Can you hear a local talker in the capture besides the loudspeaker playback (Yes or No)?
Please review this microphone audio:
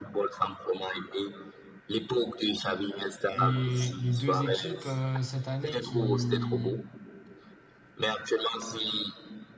Yes